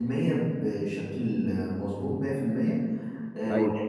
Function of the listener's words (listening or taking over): listening